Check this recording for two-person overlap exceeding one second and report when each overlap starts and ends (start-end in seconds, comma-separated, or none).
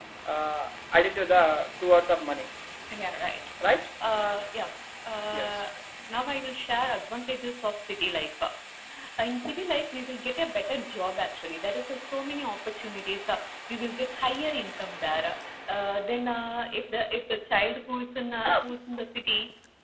none